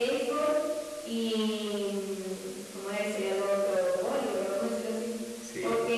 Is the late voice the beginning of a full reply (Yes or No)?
No